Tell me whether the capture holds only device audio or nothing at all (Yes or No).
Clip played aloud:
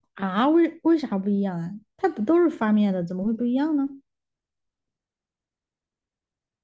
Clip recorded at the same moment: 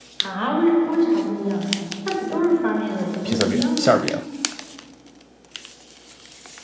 No